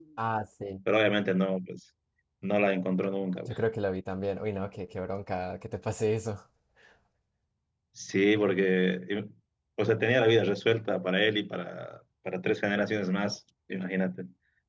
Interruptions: none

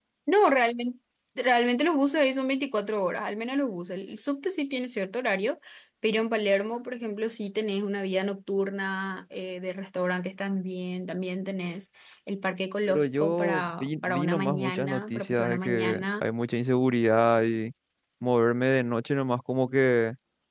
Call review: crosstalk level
present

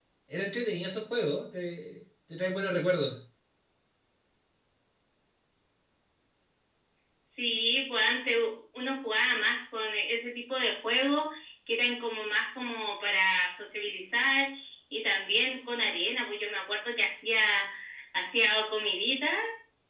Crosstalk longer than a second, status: none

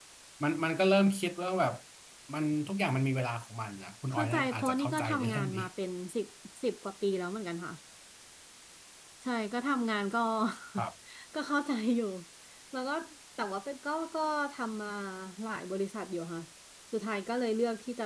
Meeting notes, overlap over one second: present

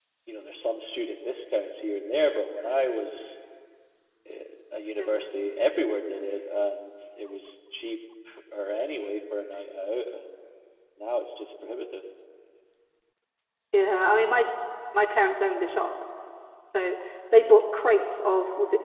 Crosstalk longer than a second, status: none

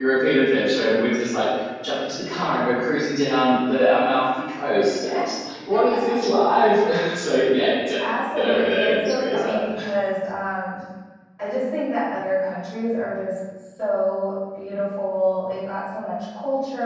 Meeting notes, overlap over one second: present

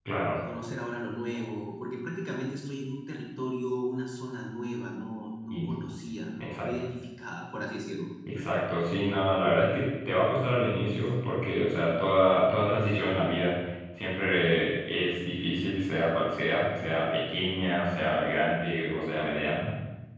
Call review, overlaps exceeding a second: none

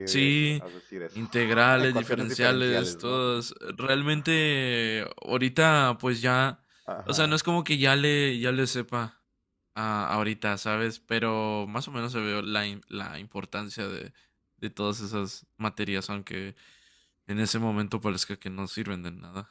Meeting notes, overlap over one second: present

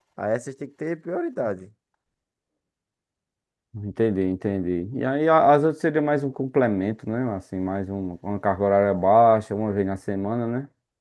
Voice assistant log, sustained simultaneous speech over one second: none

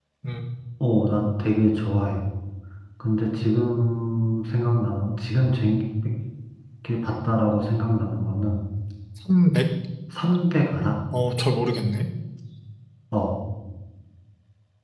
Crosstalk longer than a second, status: none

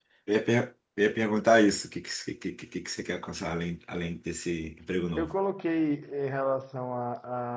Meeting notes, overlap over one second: none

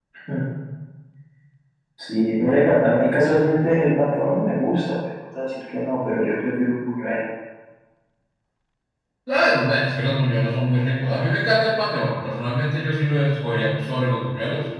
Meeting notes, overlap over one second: none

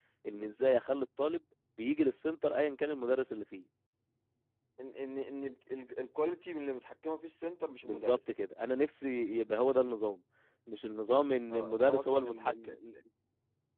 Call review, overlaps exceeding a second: present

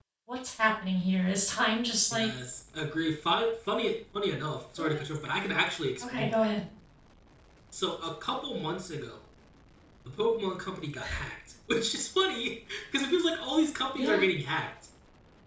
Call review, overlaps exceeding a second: none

